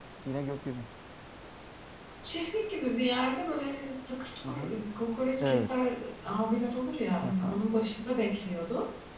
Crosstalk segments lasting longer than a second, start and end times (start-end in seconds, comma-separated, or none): none